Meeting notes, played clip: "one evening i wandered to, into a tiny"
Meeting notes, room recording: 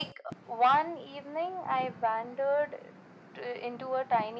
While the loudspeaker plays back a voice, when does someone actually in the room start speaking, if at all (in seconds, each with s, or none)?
none